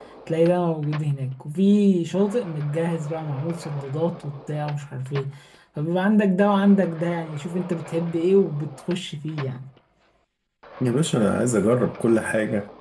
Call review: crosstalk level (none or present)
none